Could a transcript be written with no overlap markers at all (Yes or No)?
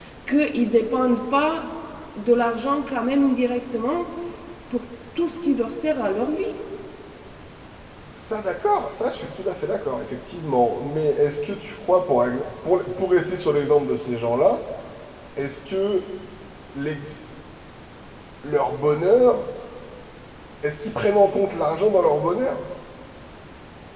Yes